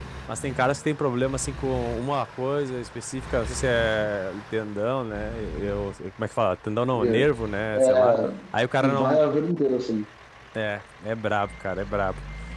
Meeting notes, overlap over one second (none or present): none